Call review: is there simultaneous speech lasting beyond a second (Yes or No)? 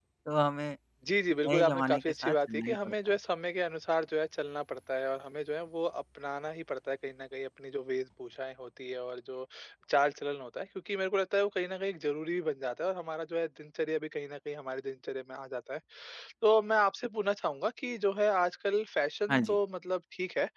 Yes